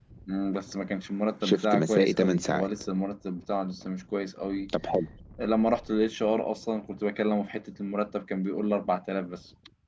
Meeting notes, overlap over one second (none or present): present